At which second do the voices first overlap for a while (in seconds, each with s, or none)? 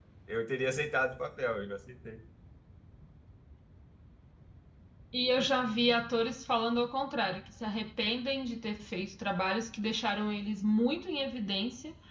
none